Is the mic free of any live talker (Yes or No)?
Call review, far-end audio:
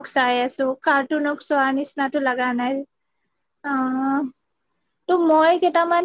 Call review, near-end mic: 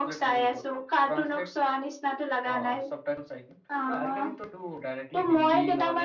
No